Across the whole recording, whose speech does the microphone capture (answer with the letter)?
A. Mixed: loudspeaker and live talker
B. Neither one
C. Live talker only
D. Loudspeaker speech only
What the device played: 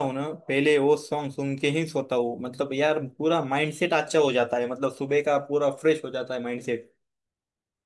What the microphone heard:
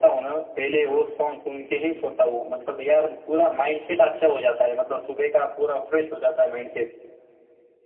D